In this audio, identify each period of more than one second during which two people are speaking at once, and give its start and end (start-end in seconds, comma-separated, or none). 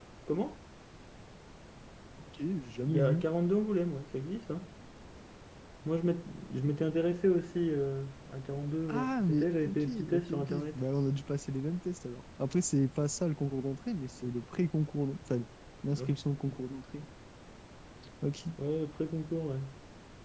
8.9-10.8